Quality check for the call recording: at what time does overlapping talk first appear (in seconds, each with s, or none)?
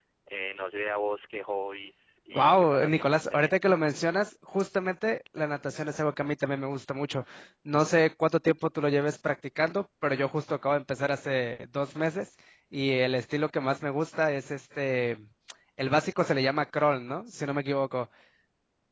2.3 s